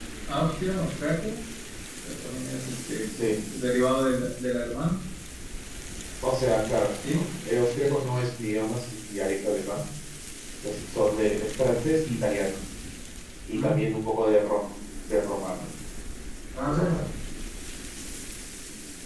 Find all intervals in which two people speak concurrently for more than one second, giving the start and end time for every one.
none

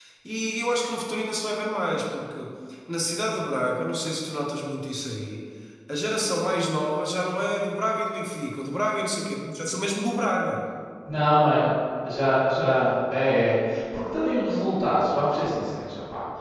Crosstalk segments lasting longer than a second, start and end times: none

